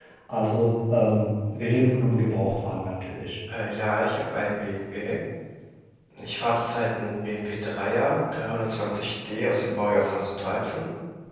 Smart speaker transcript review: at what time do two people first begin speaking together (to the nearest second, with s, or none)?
none